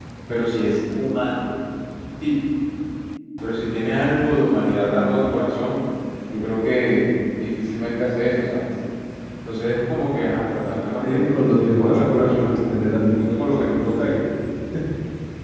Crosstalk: present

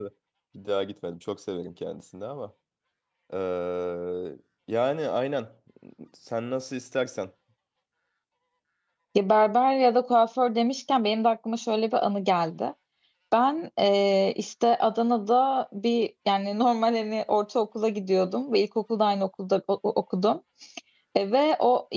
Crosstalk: none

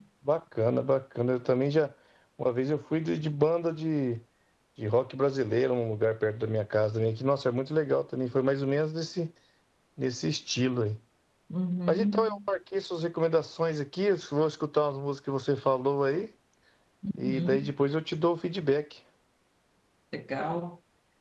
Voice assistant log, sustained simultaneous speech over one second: none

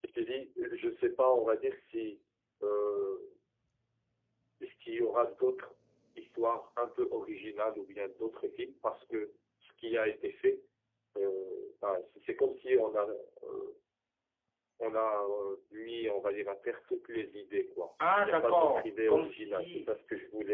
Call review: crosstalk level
present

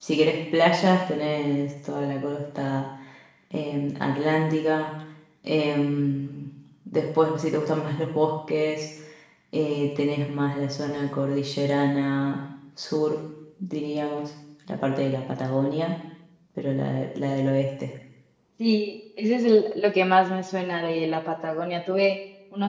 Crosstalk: none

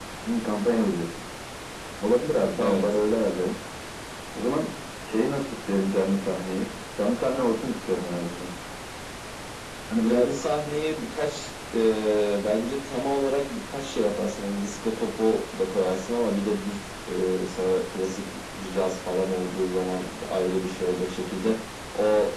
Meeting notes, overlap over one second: none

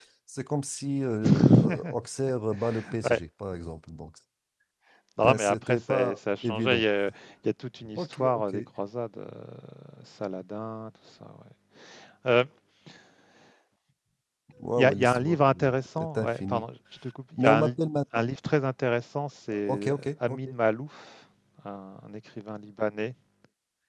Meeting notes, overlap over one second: present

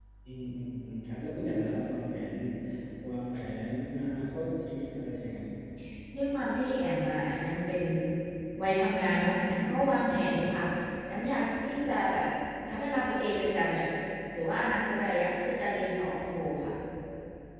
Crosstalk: none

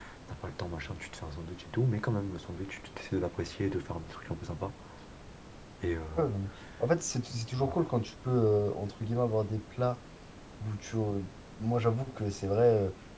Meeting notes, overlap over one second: none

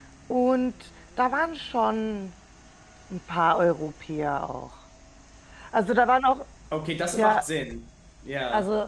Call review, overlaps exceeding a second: none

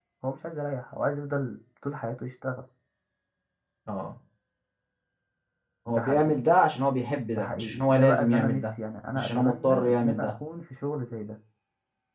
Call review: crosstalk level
present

